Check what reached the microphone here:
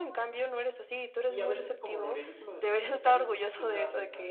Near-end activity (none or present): present